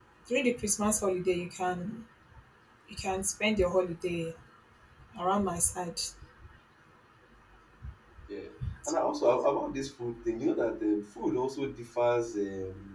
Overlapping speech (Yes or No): No